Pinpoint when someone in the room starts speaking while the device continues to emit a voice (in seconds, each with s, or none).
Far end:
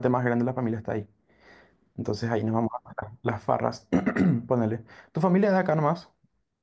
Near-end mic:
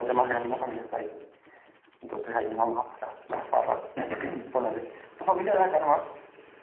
none